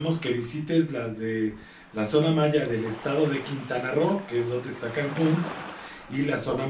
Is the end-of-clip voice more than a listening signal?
No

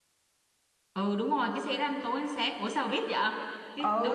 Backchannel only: No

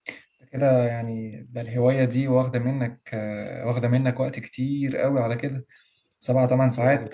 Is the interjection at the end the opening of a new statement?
No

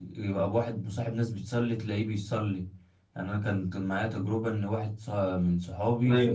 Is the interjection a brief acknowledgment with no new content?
Yes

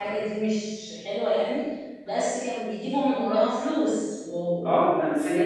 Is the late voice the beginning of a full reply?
Yes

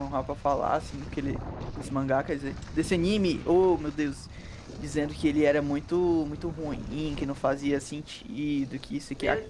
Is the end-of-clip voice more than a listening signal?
Yes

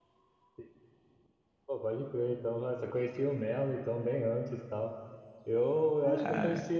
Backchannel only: Yes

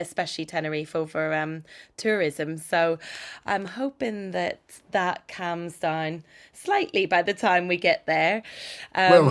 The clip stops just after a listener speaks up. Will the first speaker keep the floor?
No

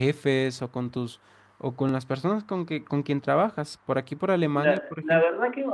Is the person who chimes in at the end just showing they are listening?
No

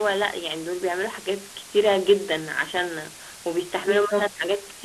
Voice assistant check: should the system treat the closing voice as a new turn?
No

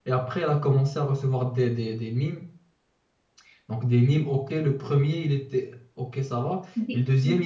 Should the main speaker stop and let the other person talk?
No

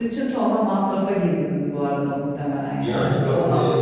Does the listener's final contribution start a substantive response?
Yes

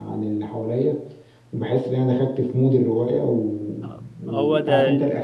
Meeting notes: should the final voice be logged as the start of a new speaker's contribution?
No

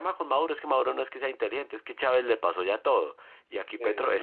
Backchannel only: Yes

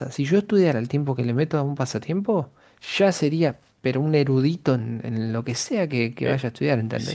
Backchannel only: No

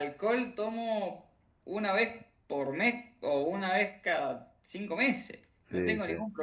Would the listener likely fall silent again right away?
Yes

